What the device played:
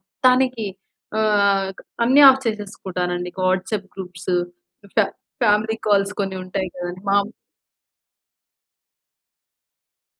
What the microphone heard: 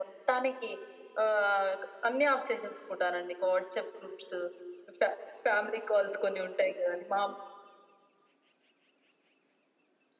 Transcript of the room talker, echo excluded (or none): none